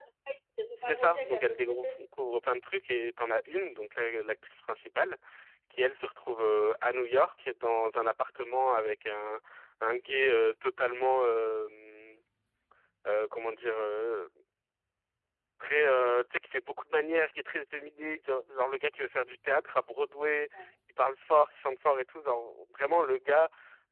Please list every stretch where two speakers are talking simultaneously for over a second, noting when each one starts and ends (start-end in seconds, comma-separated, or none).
0.8-2.0